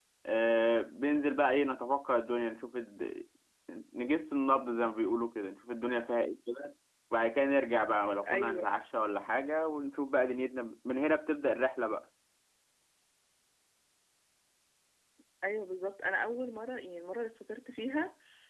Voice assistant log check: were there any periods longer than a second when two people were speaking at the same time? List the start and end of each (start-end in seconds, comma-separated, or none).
none